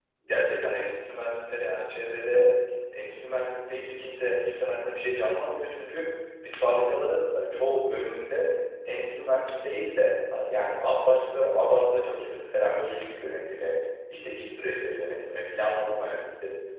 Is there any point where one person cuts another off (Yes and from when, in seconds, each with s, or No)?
No